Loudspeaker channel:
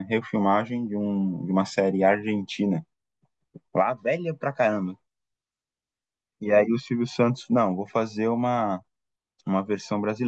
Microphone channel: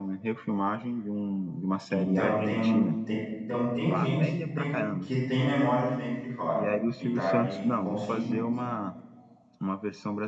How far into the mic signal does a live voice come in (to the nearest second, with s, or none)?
2 s